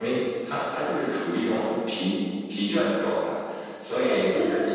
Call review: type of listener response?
taking over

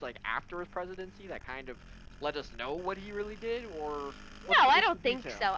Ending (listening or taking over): taking over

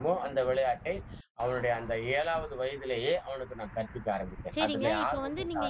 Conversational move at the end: taking over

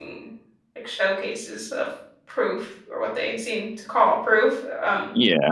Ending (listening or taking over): taking over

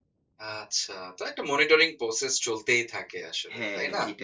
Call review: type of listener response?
taking over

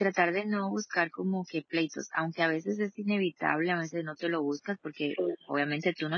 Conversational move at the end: listening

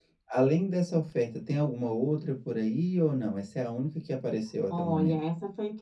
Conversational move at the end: taking over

